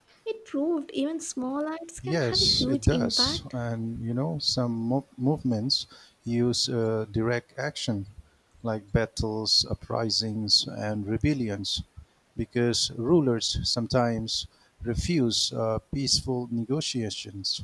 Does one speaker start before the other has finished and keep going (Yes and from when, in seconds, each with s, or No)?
Yes, from 2.0 s